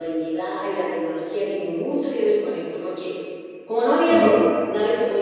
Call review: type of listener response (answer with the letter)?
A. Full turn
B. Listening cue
B